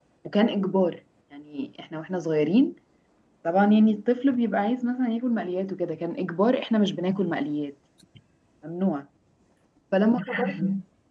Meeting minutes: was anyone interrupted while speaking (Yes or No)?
No